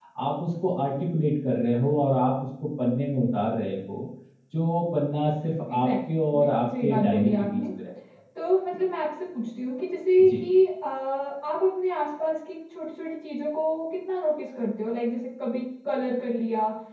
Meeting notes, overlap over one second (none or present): present